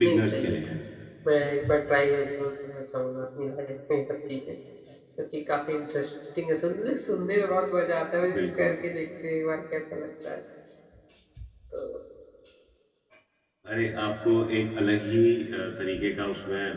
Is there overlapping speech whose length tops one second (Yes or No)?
No